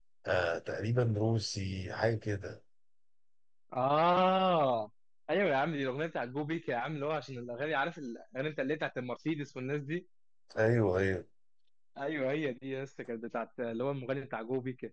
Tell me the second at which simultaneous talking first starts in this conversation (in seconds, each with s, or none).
none